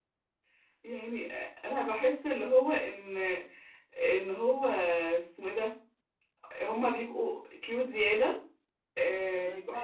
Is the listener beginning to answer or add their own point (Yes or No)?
No